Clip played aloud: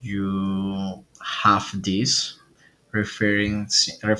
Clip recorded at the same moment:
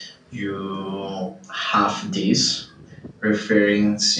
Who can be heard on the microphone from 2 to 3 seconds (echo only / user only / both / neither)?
echo only